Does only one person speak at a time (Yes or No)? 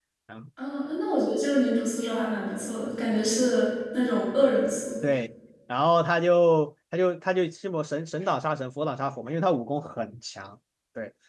Yes